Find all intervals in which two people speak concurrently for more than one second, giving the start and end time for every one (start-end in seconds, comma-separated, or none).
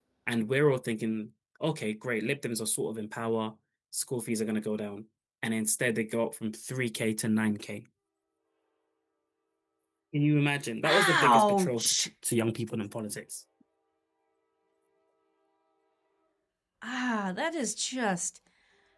10.8-12.1